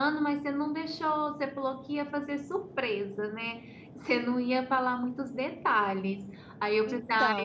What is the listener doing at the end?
listening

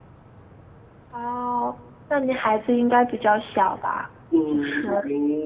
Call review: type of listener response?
taking over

